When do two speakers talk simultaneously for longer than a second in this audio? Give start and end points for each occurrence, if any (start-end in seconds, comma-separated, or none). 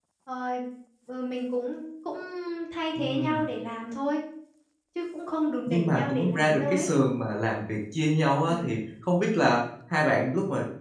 5.7-6.9